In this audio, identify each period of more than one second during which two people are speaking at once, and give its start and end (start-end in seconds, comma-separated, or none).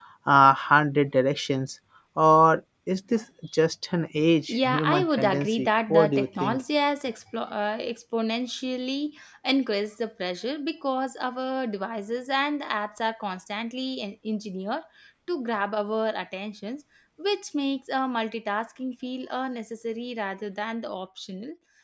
4.5-6.6